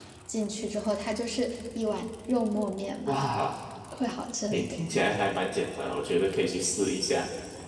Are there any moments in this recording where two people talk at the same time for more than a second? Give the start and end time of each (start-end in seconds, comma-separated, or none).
none